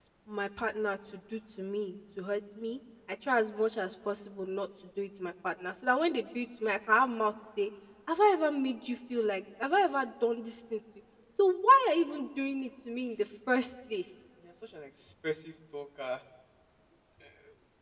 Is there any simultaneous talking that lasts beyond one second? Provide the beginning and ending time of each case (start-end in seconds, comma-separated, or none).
none